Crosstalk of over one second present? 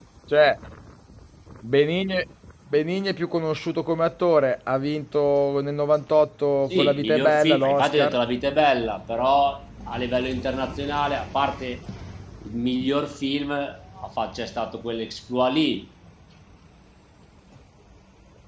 Yes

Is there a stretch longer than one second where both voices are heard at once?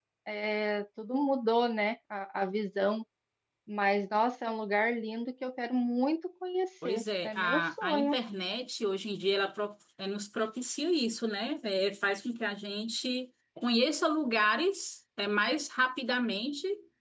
Yes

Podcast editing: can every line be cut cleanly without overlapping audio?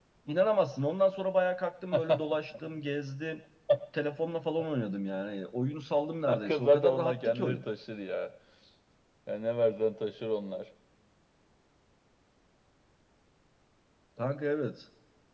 No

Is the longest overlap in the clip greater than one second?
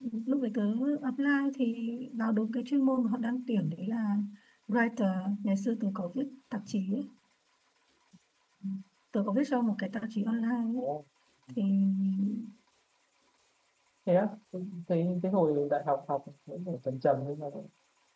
No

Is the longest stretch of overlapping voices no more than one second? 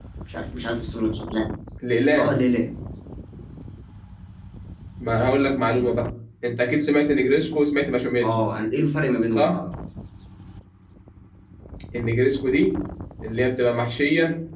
Yes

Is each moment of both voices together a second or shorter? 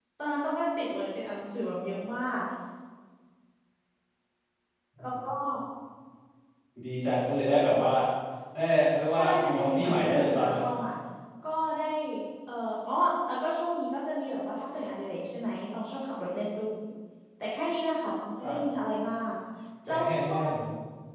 No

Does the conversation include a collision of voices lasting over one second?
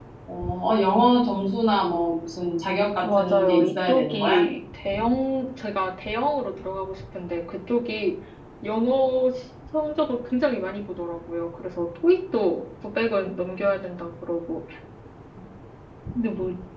Yes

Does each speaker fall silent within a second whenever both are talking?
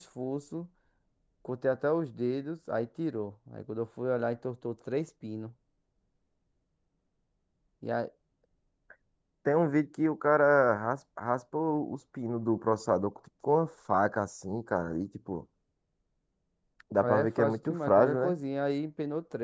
No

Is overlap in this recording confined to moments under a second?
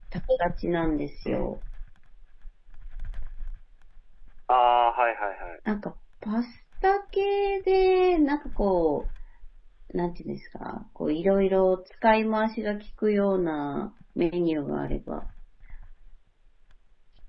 Yes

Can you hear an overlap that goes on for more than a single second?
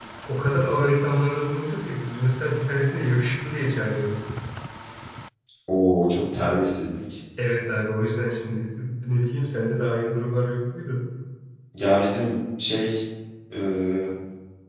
No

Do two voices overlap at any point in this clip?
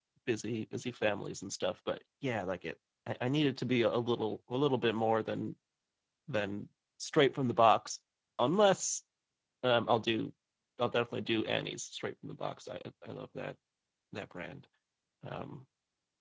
No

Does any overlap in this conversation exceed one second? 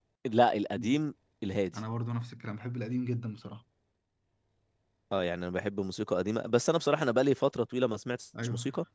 No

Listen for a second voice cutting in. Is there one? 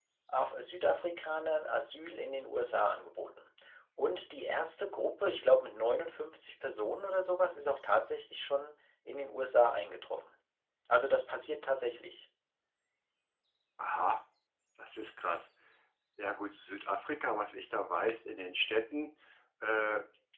No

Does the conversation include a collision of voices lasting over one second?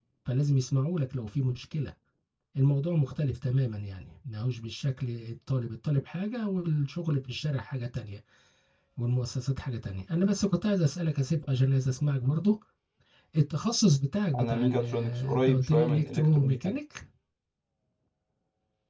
Yes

